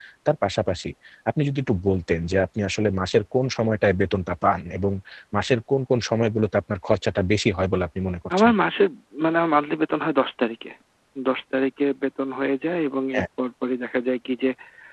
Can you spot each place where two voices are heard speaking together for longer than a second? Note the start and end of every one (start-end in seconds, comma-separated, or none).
none